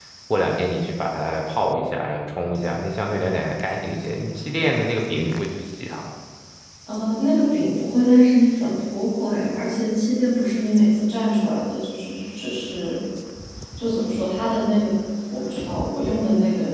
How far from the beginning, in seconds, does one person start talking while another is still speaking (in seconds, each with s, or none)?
none